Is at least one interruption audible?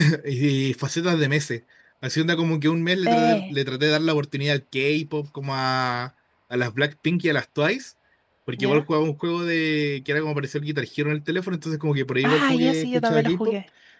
Yes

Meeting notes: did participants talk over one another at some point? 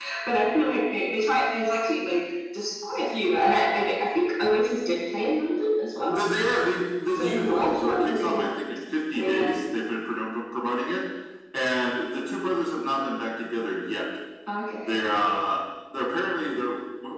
Yes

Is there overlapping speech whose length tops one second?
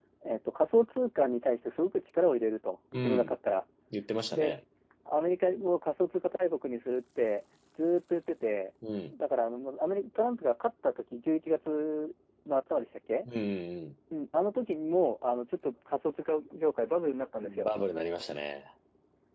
No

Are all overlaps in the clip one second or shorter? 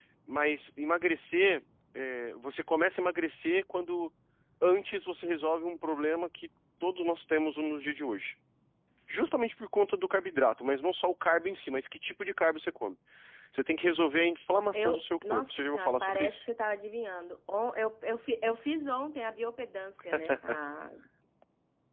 No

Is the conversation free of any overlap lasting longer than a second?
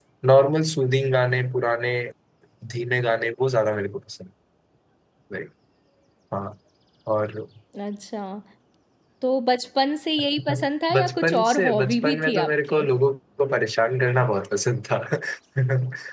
No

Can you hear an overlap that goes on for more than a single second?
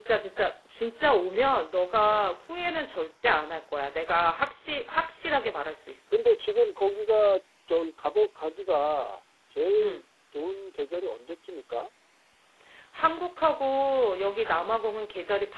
No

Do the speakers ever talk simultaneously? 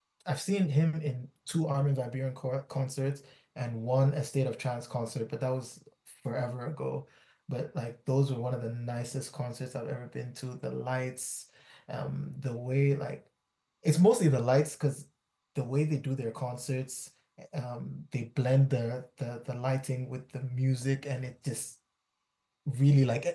No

